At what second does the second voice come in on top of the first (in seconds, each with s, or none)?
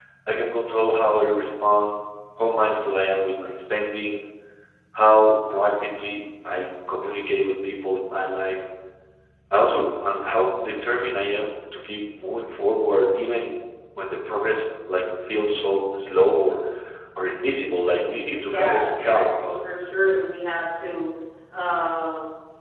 18.3 s